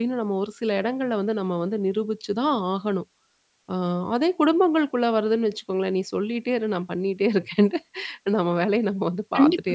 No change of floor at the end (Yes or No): No